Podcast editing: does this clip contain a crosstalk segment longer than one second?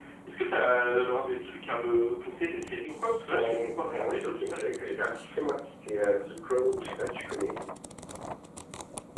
Yes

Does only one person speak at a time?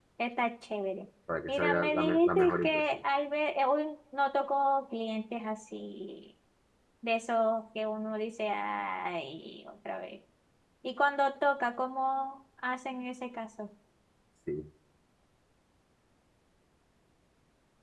No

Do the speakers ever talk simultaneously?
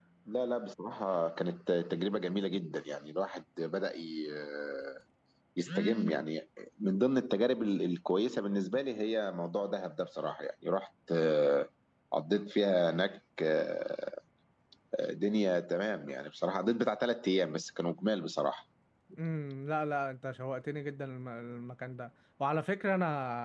No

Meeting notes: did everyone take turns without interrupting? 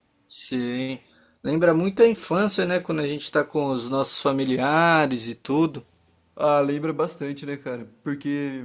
Yes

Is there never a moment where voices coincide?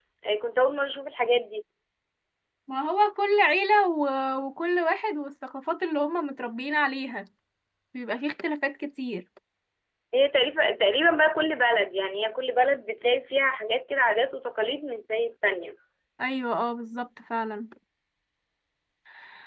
Yes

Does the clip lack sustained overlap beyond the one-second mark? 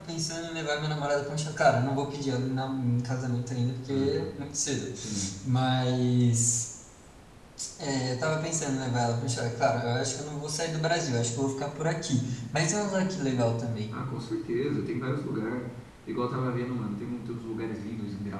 Yes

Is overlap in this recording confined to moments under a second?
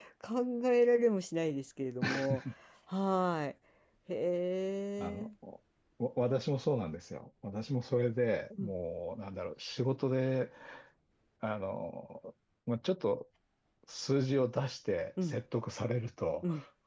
Yes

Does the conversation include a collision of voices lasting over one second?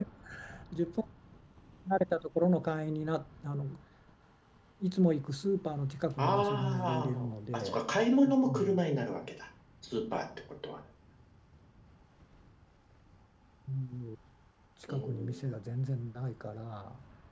Yes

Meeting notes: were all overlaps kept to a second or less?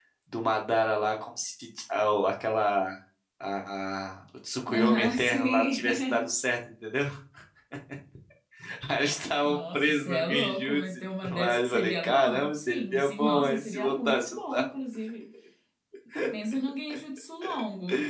No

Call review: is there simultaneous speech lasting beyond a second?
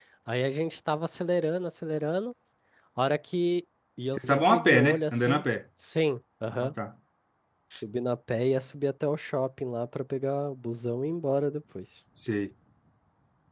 Yes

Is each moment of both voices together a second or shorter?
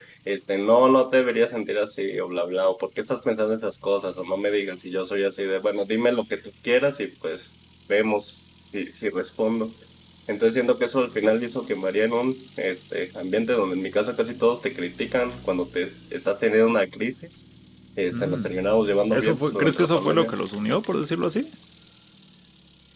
No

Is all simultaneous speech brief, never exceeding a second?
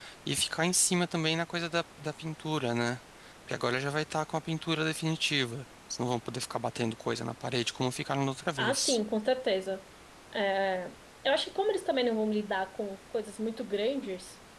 Yes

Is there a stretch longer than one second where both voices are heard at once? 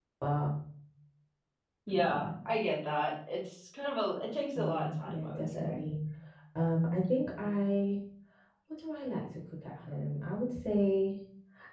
Yes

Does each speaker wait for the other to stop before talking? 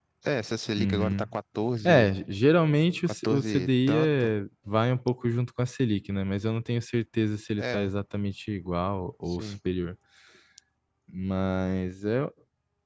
No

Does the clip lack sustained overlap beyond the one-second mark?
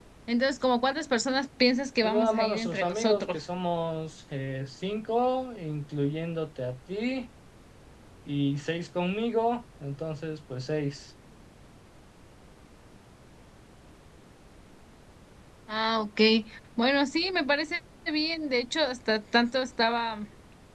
No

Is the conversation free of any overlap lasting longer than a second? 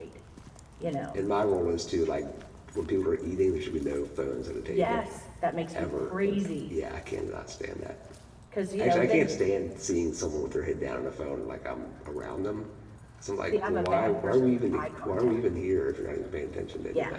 No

